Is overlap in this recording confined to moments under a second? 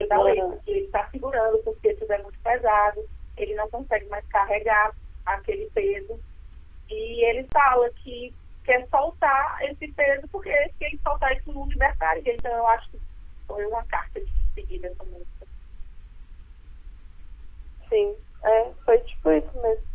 Yes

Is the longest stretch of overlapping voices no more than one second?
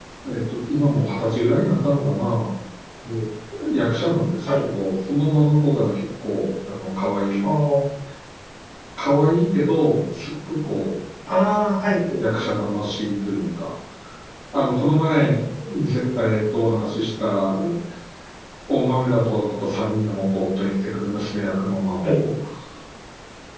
Yes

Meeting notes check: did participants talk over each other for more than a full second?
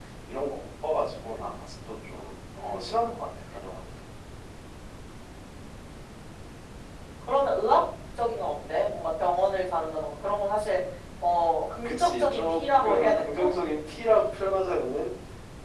Yes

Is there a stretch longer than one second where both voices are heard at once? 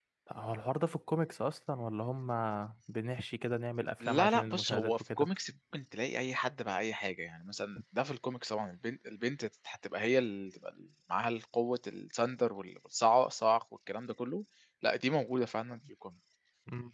Yes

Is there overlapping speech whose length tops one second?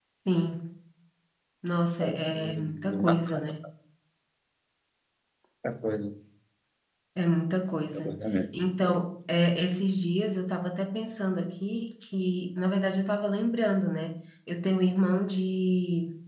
Yes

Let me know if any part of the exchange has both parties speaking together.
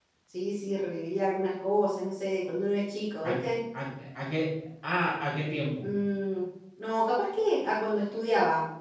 No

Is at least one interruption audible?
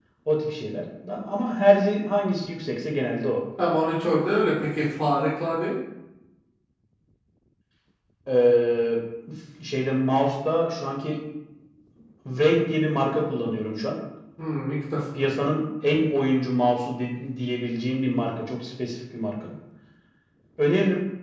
No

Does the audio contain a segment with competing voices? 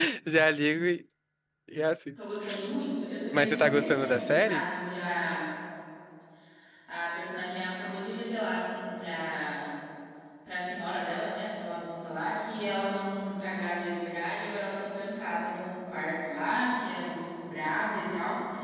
Yes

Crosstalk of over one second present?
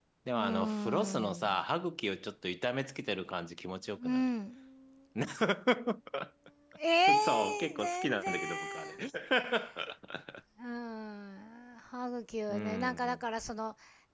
Yes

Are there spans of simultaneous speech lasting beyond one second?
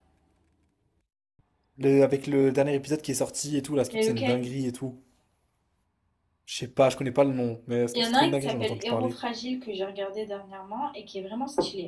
Yes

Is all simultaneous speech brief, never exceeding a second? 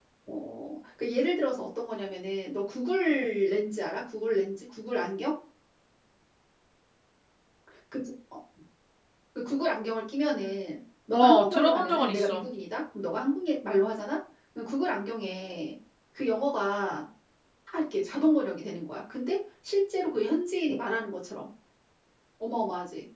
No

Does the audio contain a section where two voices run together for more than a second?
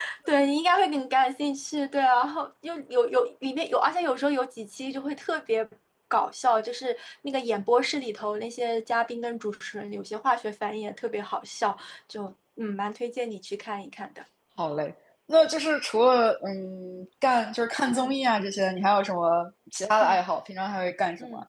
No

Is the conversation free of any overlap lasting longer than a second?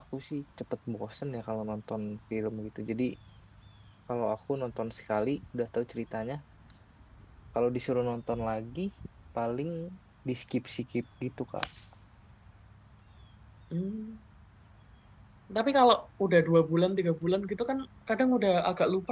Yes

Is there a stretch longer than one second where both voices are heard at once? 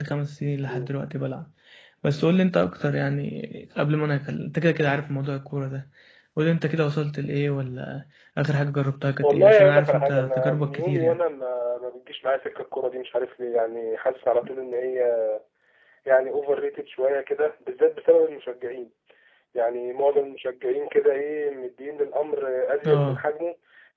Yes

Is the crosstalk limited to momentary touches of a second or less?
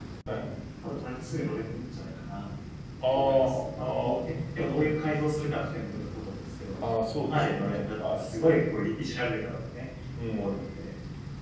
No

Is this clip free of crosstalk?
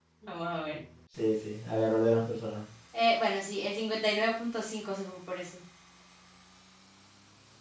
Yes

